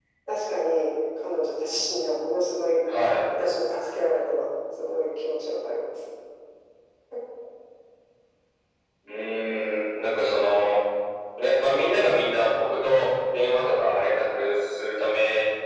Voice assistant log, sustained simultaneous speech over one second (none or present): none